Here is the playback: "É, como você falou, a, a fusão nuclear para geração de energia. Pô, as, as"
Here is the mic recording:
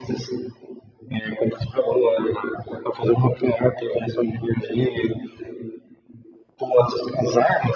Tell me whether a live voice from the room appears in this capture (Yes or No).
No